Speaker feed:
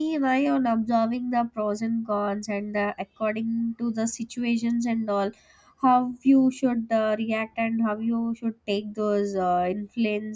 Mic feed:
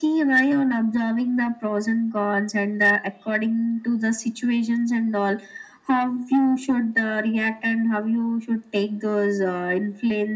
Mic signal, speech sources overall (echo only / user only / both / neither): echo only